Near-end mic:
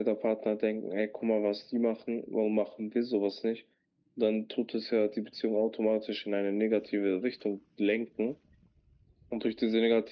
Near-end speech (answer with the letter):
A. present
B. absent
B